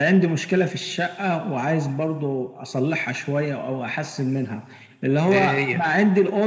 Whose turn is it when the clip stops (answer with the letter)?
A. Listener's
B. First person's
B